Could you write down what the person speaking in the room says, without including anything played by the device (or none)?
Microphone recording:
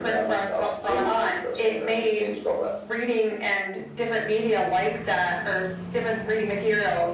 none